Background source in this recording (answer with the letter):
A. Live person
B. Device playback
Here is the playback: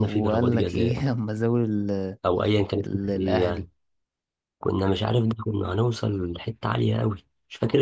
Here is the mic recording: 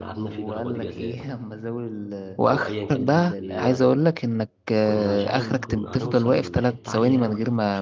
B